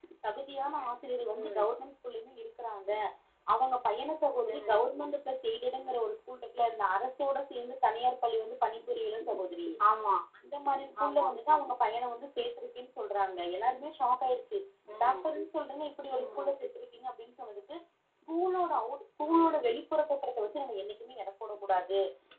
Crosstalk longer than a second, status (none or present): none